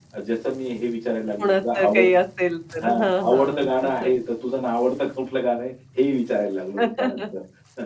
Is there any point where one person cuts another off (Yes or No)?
Yes